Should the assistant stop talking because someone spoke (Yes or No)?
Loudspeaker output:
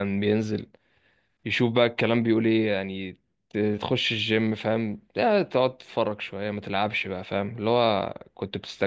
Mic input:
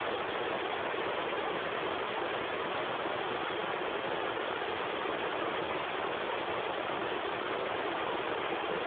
No